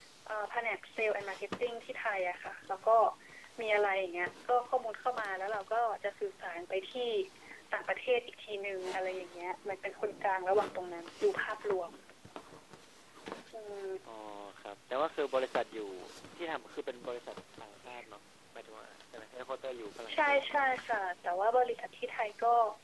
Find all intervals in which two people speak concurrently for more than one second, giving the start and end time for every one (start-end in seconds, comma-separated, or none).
none